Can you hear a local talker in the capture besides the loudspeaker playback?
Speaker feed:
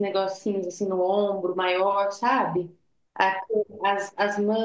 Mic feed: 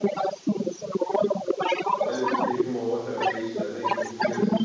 Yes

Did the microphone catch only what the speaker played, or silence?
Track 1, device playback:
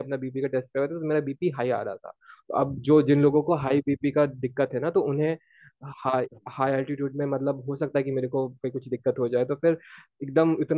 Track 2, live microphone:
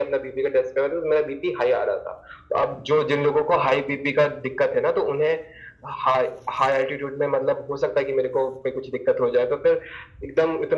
Yes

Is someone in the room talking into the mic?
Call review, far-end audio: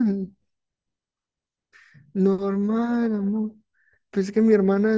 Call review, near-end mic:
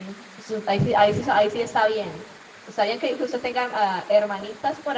Yes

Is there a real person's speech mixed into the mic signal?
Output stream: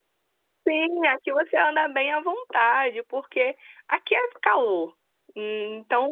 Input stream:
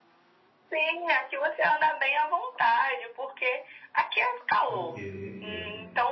Yes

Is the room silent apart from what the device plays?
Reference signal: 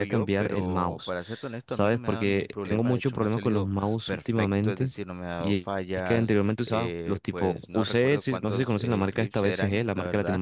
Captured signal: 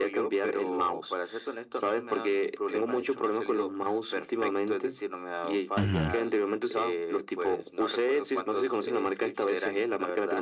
No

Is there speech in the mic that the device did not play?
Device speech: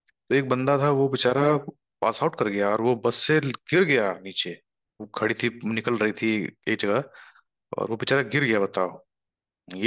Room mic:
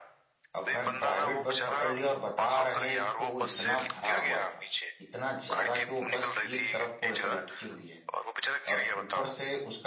Yes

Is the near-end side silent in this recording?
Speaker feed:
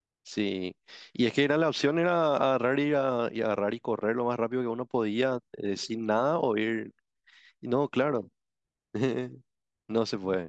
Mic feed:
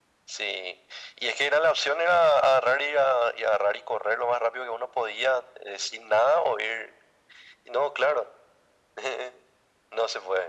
Yes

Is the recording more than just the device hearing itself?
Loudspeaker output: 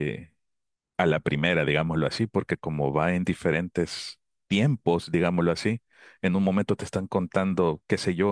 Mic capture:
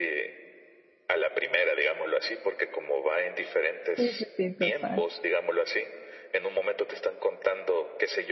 Yes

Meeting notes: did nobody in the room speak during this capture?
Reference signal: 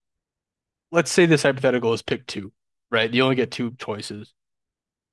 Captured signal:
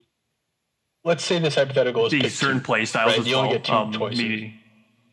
No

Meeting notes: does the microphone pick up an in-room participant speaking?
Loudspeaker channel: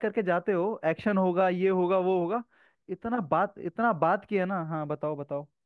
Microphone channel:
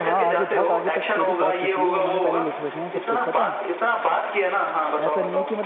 Yes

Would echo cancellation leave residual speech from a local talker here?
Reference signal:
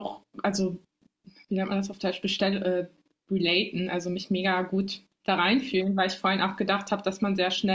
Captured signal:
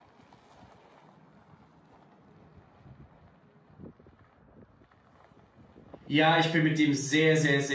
Yes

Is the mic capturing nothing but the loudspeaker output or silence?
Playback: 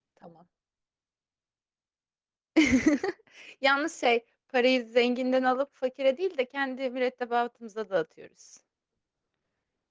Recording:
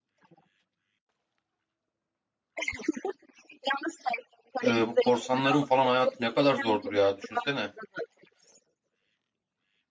No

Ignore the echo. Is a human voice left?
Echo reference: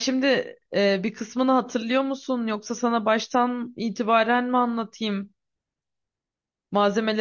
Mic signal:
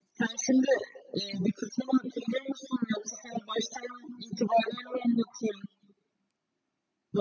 No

